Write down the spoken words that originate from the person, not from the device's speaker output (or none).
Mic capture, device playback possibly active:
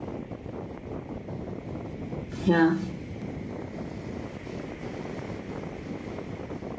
Yeah.